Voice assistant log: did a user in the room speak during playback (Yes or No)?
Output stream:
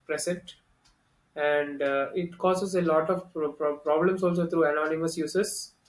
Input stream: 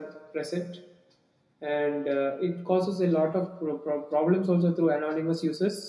No